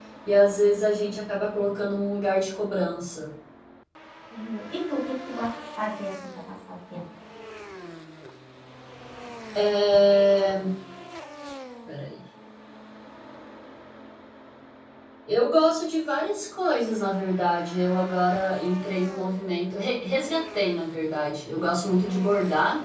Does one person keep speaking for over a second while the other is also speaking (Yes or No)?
No